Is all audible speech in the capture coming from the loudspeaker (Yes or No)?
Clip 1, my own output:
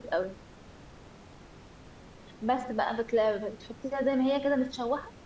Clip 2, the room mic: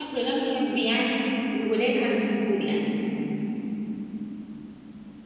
No